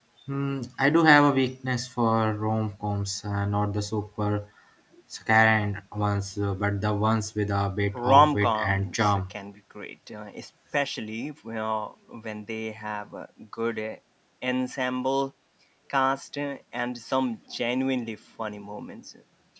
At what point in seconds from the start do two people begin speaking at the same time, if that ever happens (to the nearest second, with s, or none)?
8 s